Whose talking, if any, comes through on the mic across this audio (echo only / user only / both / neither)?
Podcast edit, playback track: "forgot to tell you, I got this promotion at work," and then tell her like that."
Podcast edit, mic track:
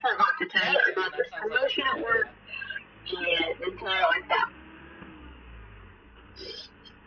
both